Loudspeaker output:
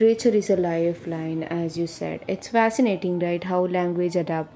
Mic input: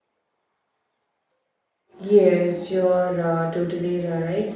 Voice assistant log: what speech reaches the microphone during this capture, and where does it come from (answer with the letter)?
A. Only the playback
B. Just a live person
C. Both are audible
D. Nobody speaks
B